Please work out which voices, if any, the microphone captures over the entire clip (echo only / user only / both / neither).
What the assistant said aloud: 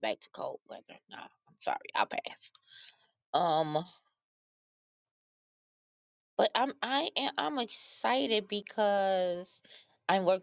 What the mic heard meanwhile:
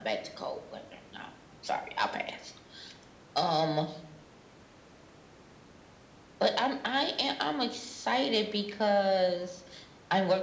echo only